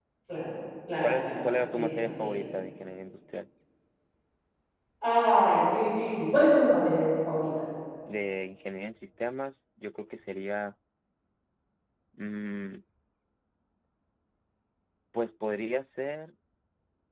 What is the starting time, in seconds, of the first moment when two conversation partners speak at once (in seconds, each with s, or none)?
1.0 s